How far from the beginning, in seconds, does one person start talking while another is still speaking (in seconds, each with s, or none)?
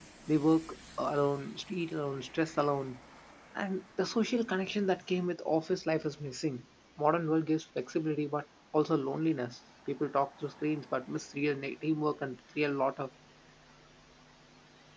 none